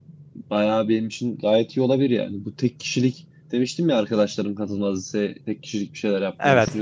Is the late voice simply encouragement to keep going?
Yes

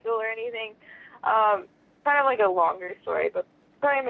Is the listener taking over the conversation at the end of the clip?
No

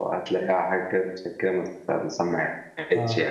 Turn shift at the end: Yes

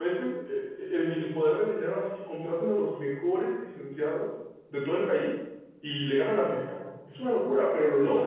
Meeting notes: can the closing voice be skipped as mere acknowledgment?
No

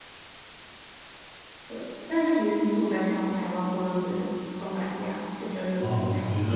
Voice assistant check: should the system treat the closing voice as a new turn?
Yes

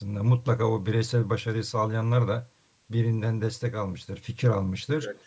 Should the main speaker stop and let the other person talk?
No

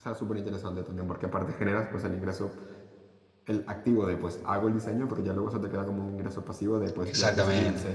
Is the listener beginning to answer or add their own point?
Yes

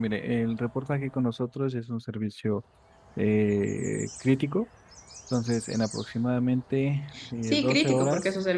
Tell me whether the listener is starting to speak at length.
Yes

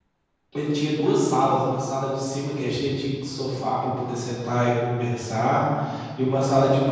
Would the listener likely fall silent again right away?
Yes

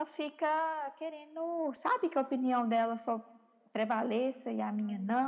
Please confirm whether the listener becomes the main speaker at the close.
No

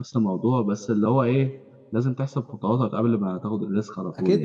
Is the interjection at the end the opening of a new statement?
Yes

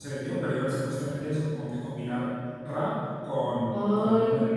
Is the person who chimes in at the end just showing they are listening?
No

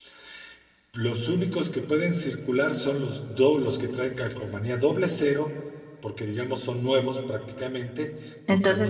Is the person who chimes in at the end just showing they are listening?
No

